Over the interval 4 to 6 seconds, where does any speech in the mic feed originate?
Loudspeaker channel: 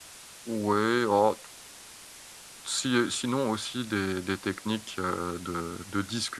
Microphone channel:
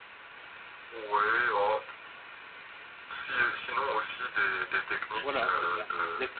both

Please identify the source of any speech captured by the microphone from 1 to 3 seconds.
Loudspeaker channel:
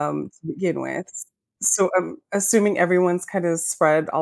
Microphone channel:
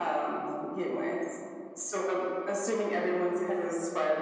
echo only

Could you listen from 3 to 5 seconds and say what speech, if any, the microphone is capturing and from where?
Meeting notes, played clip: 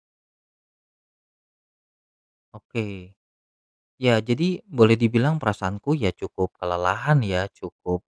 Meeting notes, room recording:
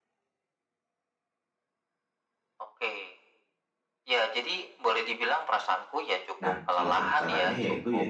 echo only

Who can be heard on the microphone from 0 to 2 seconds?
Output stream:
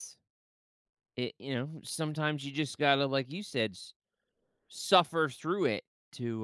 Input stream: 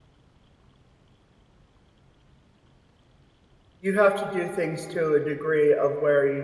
neither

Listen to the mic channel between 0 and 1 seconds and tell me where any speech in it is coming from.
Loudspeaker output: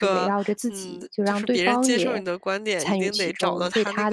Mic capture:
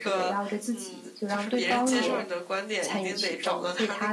echo only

